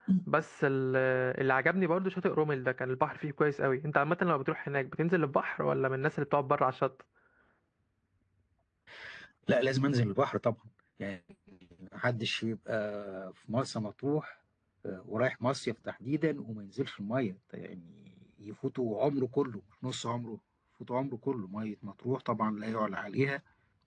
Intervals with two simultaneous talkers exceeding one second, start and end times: none

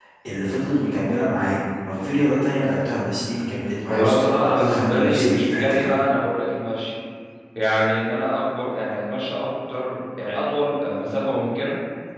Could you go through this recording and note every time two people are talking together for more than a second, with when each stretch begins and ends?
3.9-6.0

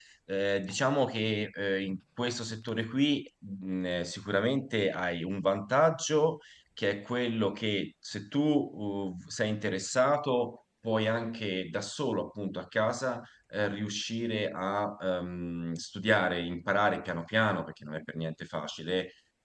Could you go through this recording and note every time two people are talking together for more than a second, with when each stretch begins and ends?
none

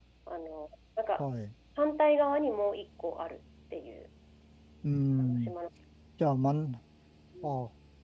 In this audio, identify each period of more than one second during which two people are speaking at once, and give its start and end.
none

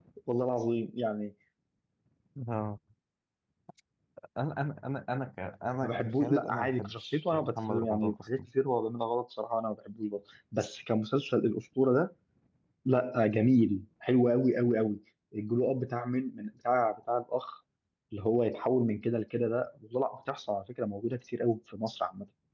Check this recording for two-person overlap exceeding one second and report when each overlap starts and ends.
5.8-8.4

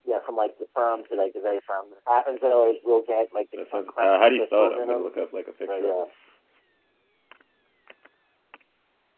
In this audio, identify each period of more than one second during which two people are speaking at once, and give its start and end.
3.7-5.1

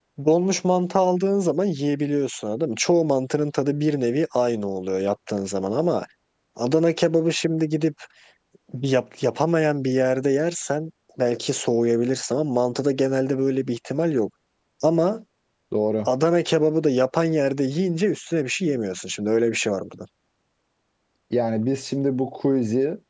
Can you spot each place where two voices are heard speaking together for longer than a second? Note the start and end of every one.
none

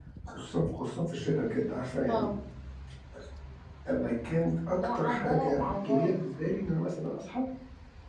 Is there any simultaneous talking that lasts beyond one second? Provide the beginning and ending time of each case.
4.7-6.2

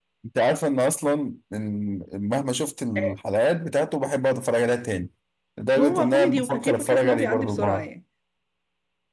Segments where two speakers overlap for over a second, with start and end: 5.8-7.9

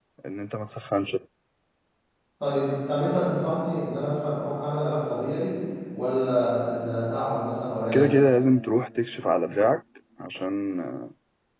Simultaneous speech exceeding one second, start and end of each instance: none

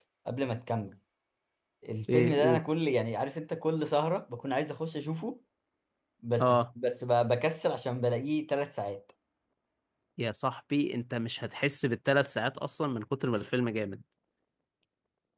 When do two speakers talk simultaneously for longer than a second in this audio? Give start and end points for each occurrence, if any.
none

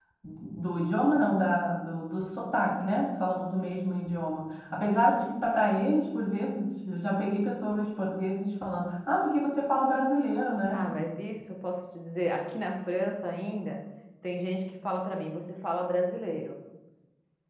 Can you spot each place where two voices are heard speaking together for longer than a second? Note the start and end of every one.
none

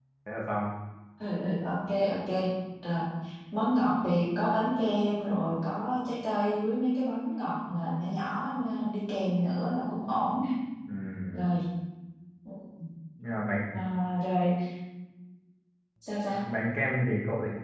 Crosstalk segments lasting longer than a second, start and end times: none

